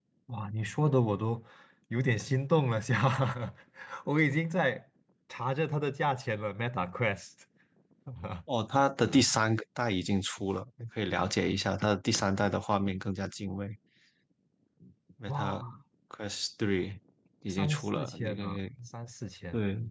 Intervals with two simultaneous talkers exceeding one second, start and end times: 17.5-18.7

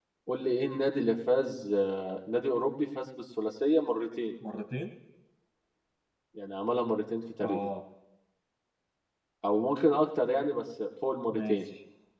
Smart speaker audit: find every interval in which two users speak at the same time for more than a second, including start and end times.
none

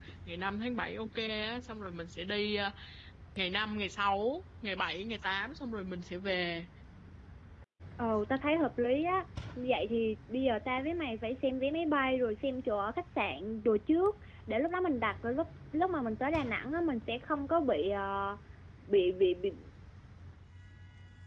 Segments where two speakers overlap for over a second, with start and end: none

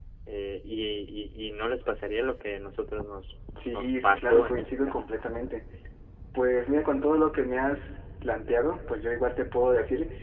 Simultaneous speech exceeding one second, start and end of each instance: 3.7-5.0

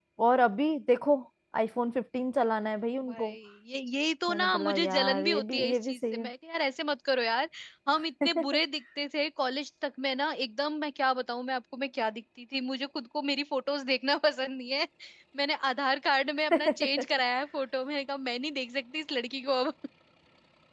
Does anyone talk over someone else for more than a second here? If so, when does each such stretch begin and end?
4.3-6.3

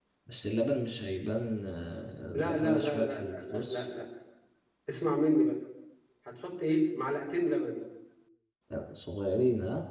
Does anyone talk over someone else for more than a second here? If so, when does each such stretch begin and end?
2.3-3.9

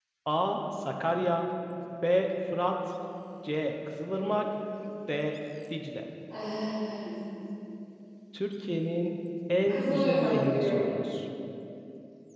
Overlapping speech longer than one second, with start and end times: 9.7-10.9

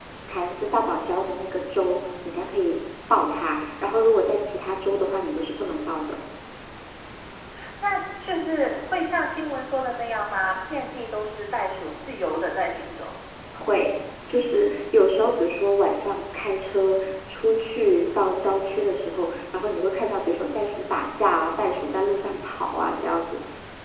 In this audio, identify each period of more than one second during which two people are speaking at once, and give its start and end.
none

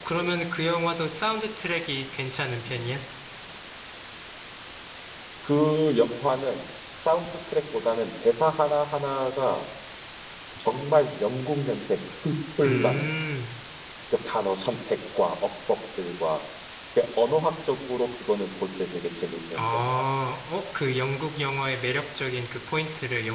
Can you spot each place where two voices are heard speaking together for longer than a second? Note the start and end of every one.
none

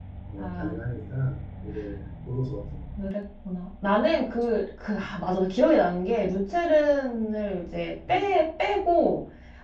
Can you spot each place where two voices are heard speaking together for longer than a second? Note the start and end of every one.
none

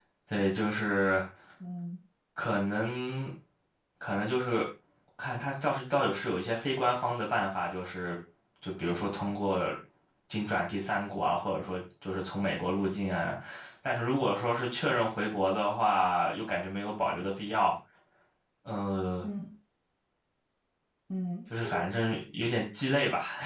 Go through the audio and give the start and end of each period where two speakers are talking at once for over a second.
none

